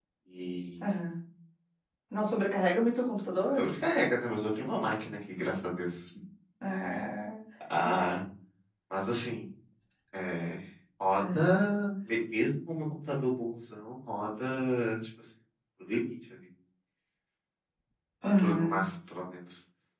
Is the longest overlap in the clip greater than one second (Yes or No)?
No